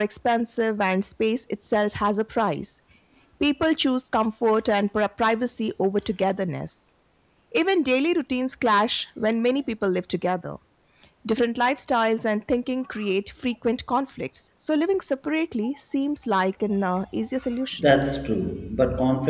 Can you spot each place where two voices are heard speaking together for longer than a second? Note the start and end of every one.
none

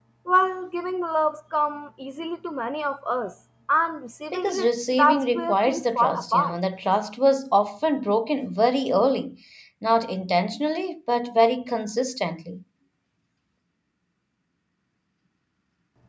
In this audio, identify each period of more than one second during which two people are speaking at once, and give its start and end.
4.3-6.6

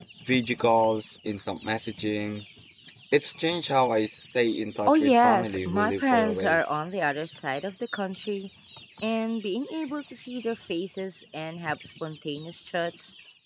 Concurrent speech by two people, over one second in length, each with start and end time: 4.9-6.6

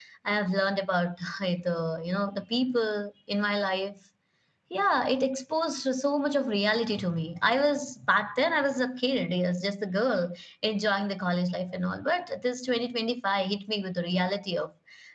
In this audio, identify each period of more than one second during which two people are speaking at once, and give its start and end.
none

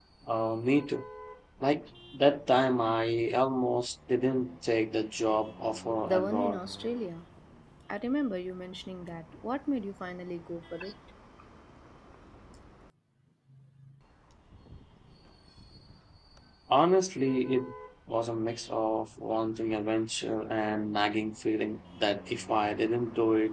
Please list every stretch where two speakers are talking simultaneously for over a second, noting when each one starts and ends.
none

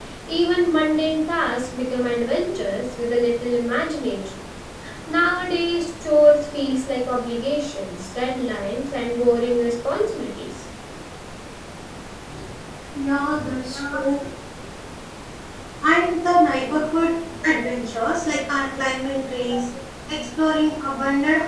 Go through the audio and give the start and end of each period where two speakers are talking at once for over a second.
none

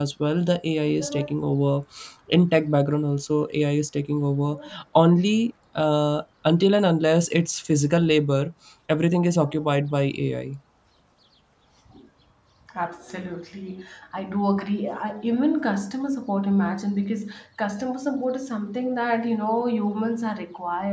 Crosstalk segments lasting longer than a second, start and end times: none

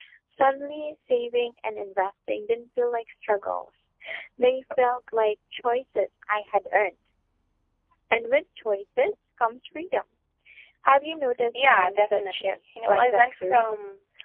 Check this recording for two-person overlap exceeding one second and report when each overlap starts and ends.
11.6-13.7

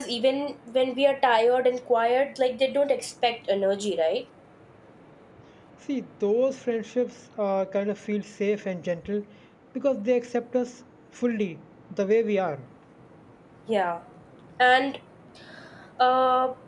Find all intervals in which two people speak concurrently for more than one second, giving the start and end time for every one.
none

